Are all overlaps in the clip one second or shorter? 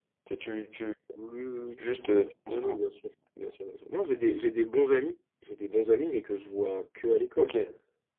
Yes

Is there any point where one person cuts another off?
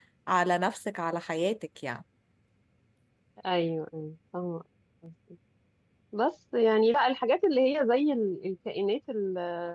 No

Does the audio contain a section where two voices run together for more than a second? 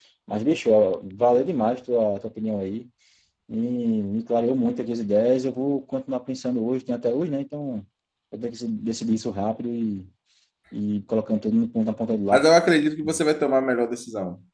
No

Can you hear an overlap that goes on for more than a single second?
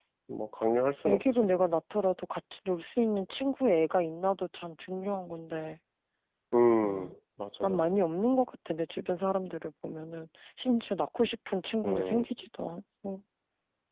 No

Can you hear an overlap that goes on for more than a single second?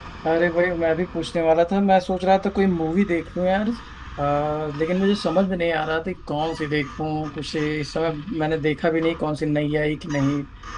No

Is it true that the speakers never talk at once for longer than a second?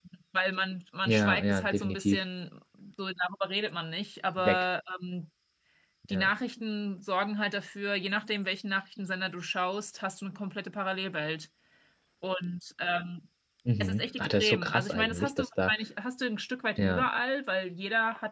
No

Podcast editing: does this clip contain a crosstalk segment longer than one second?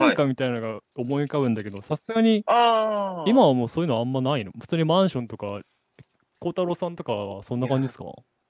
No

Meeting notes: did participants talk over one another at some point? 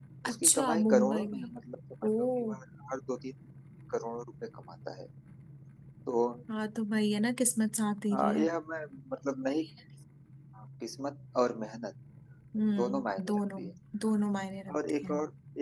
Yes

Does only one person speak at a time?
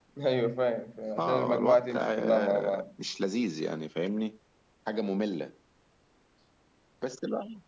No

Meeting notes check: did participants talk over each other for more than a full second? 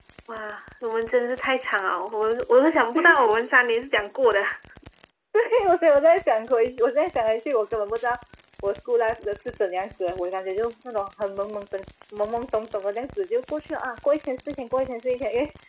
No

